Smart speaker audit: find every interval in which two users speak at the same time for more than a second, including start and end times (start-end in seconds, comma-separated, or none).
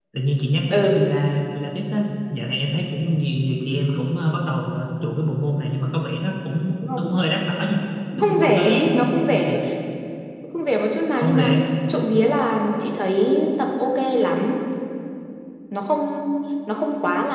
8.2-9.6